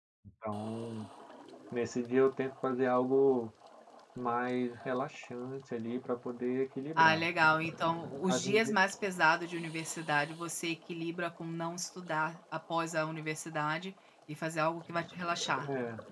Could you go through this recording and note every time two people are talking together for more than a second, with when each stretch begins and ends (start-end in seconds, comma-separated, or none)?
none